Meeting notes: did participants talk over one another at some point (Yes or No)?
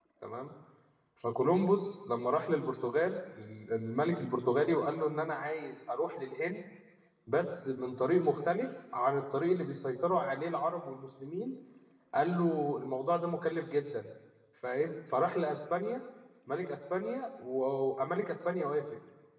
No